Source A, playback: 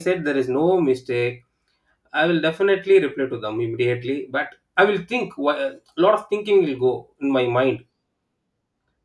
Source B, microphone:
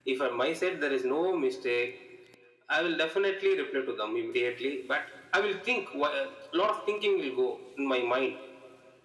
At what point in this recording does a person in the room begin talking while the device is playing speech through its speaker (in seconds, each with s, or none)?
none